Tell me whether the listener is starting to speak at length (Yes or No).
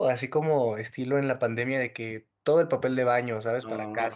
Yes